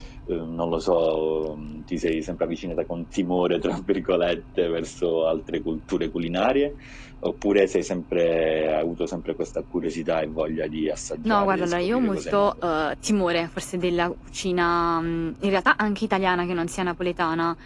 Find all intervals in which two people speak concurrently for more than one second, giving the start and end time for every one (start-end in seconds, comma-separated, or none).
11.2-12.5